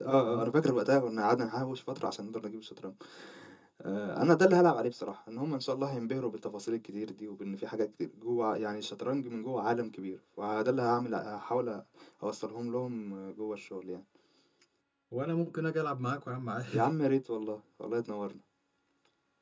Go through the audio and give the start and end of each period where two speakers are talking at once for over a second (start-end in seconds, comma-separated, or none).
none